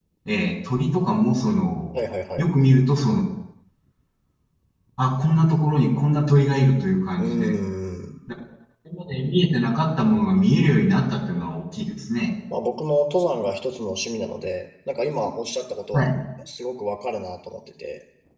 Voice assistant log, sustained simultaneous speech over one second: none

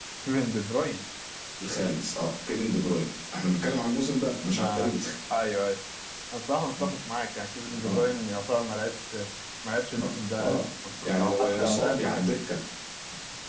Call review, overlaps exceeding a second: present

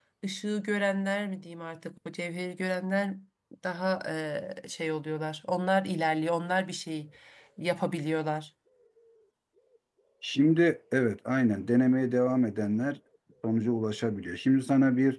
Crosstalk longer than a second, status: none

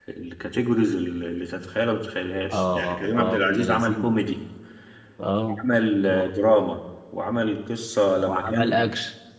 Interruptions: present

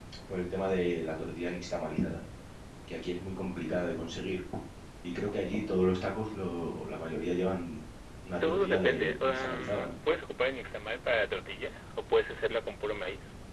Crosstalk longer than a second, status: present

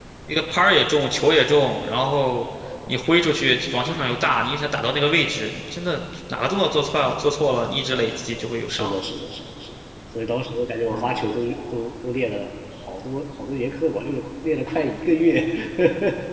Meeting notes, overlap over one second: none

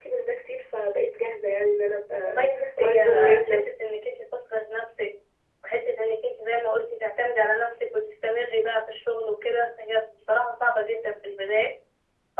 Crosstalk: present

